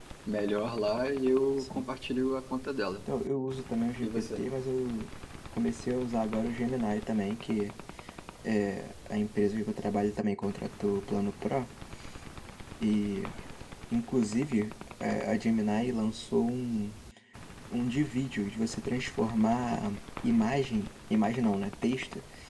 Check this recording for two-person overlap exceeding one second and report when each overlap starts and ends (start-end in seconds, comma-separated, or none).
none